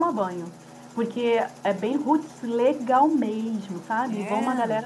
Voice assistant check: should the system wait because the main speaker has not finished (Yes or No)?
Yes